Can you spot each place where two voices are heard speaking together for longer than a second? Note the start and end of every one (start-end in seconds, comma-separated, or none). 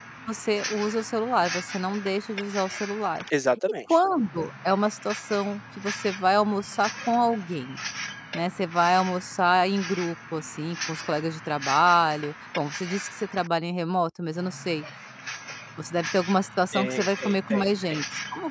16.7-18.0